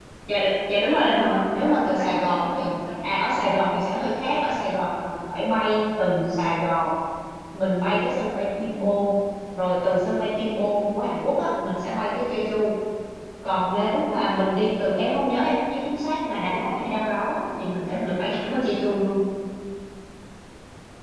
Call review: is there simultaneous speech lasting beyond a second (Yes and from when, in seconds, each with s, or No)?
Yes, from 1.1 s